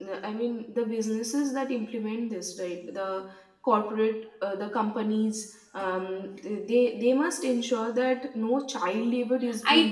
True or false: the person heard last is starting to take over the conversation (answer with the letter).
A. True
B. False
A